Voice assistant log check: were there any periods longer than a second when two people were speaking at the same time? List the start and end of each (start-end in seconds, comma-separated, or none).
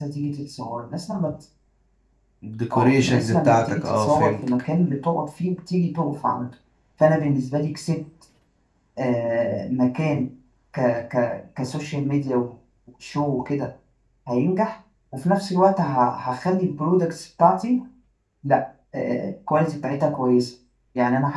2.7-4.5